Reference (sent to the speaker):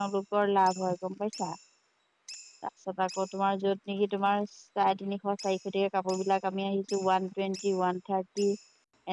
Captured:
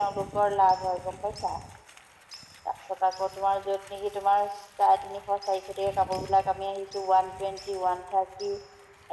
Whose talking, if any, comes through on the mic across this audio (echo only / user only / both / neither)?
echo only